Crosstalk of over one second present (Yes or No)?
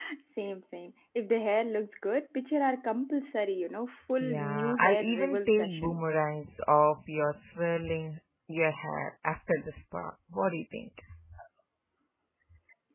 Yes